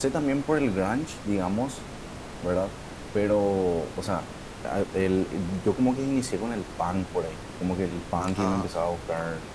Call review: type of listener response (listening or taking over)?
listening